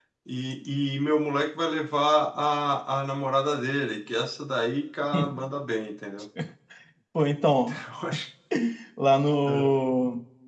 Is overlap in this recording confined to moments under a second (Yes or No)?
Yes